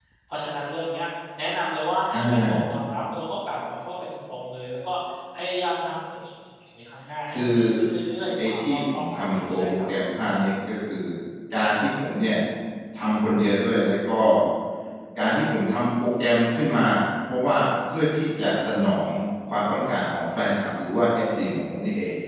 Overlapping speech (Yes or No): Yes